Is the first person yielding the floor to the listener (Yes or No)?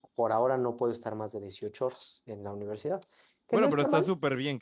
Yes